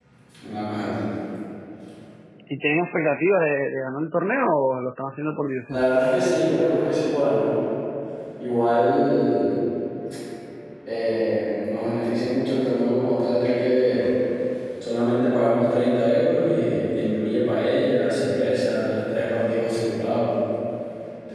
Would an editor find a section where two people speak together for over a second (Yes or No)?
No